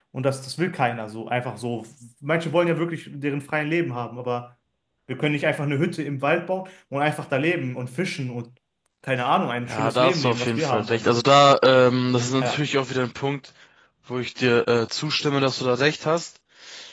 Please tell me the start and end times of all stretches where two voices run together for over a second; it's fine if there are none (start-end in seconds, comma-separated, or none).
9.7-11.1